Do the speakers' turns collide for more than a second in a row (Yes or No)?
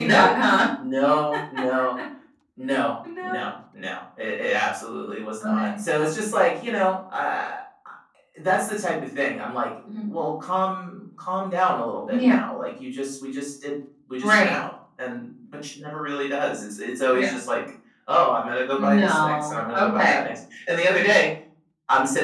Yes